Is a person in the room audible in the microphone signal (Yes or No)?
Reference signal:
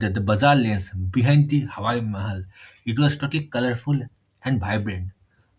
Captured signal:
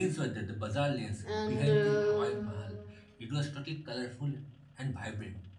Yes